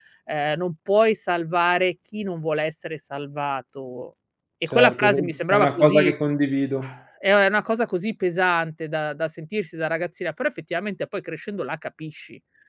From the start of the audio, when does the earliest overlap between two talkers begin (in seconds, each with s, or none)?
4.7 s